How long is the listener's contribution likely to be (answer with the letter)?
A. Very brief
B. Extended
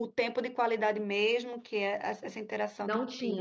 A